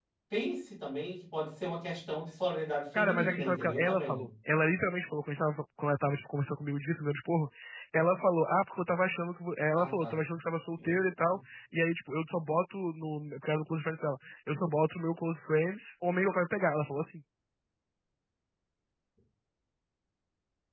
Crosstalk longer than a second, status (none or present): present